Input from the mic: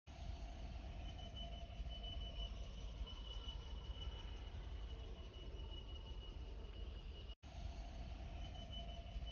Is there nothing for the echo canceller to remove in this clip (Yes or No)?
Yes